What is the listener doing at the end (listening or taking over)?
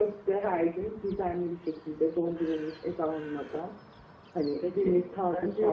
taking over